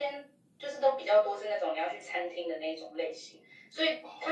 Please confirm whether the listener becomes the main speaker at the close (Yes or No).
No